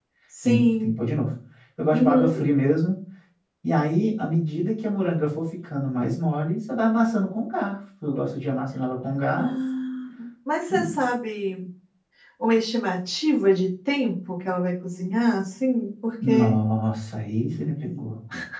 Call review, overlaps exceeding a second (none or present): none